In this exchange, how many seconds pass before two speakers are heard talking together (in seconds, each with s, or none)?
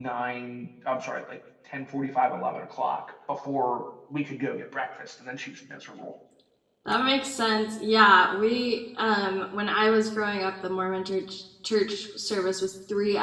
none